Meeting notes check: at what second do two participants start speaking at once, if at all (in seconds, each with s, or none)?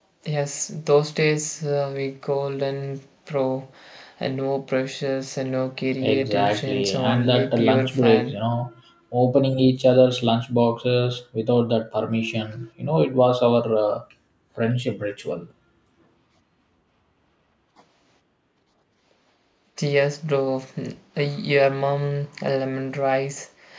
6.0 s